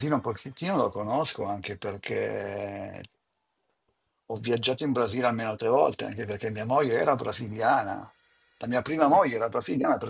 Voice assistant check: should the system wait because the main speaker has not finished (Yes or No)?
Yes